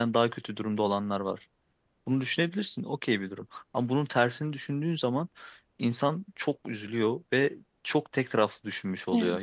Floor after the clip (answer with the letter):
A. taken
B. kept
B